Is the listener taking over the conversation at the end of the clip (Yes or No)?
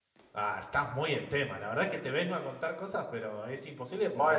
Yes